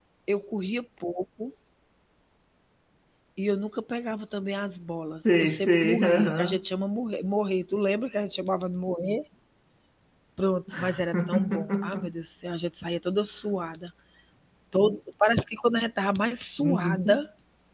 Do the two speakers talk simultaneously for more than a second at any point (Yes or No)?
Yes